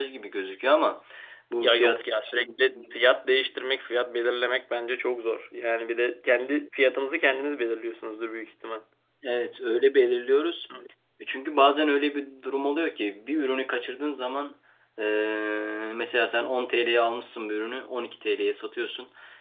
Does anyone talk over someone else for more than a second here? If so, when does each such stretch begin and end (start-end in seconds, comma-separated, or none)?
none